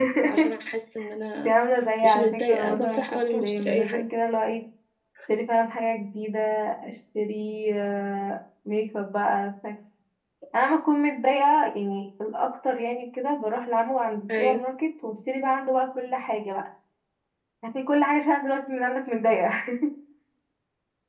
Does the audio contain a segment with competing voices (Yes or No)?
Yes